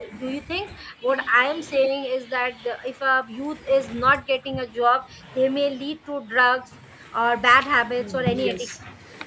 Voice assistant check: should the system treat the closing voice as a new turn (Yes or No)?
Yes